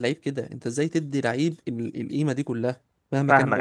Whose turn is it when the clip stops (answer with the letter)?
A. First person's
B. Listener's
B